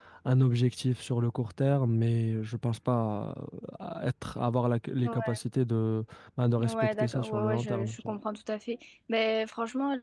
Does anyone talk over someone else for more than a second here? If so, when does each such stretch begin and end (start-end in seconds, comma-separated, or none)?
6.6-7.9